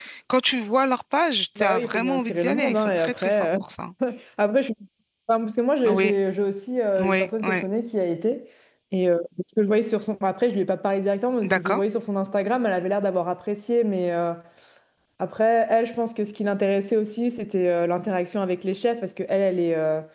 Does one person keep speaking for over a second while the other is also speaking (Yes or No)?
Yes